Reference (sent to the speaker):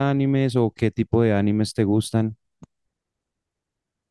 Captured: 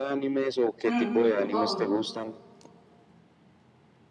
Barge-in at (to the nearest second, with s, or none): 1 s